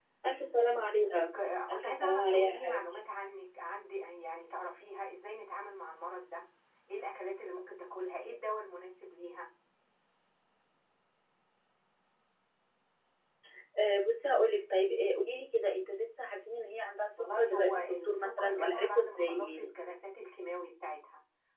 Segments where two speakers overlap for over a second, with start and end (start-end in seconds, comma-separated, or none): 1.7-3.0, 17.2-19.7